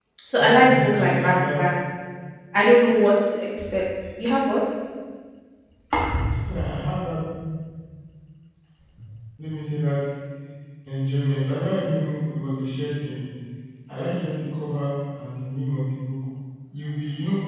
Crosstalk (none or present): present